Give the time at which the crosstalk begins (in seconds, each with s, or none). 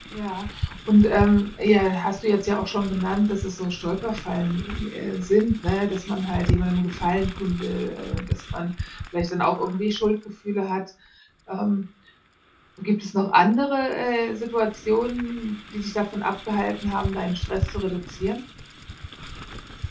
none